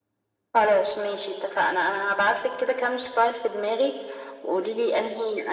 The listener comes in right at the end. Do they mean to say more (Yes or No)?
No